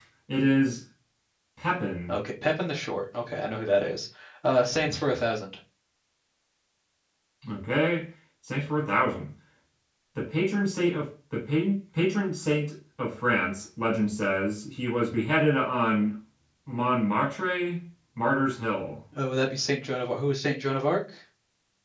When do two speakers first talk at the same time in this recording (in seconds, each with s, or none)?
none